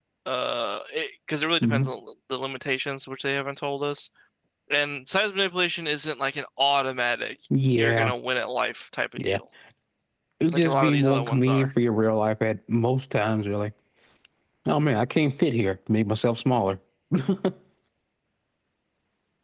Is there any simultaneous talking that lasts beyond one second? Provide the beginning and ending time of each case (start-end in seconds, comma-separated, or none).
10.5-11.7